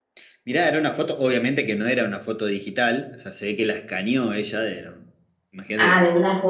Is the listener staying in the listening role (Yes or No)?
No